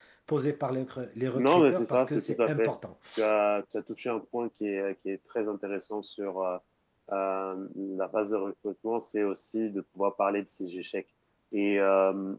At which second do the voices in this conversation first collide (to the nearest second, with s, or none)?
1 s